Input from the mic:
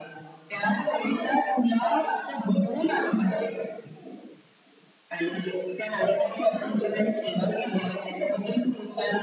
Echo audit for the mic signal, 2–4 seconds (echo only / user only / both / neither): echo only